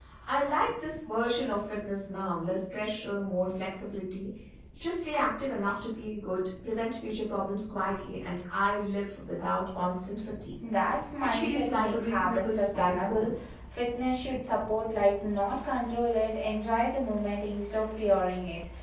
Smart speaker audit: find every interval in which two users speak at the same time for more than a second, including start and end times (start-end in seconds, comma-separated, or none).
11.2-13.3